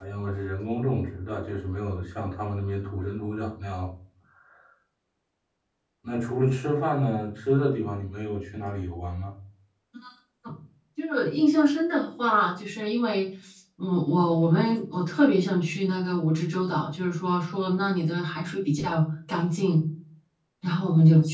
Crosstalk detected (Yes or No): No